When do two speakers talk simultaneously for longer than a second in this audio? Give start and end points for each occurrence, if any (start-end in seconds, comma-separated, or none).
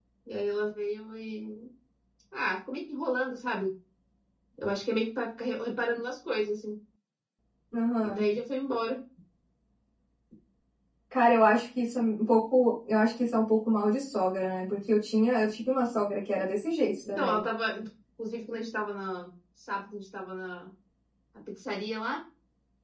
none